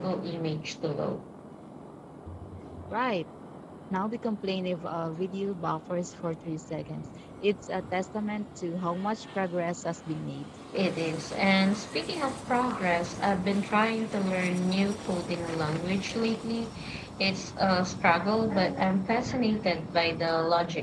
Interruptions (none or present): none